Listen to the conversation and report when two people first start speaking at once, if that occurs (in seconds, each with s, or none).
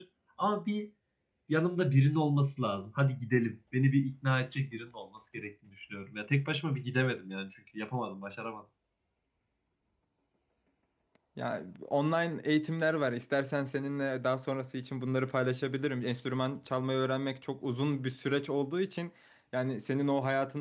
none